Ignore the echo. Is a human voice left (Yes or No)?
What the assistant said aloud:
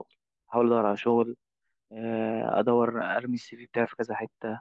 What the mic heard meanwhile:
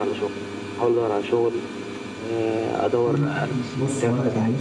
Yes